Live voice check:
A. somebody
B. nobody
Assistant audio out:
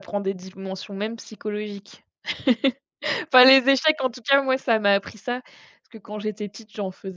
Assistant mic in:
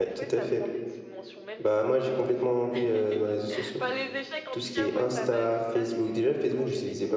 A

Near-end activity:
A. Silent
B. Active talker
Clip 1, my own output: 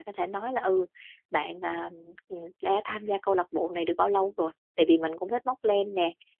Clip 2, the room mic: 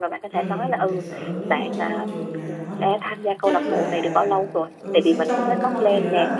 B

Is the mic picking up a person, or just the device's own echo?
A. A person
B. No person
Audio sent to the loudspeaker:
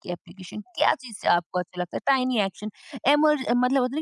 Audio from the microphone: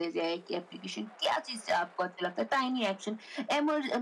B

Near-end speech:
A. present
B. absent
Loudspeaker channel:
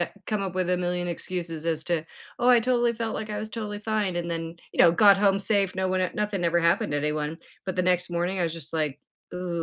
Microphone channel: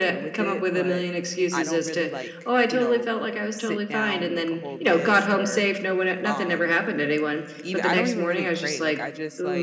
A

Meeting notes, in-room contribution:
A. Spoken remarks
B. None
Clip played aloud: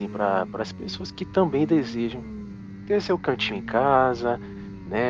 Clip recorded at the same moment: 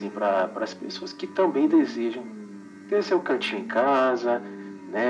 B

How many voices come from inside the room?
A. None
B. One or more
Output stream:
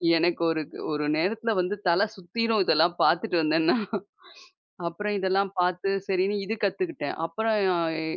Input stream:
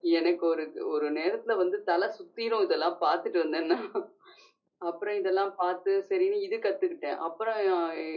A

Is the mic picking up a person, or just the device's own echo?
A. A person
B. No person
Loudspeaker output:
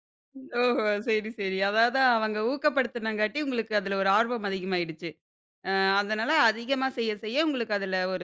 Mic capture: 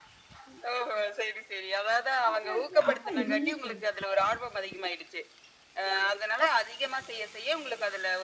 A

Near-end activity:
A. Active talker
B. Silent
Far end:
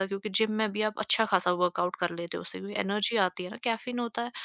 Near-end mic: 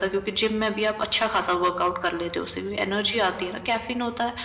B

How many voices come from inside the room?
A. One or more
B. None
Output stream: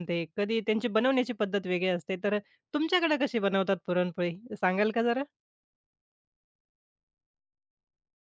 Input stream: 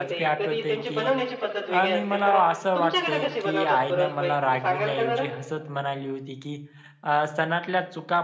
A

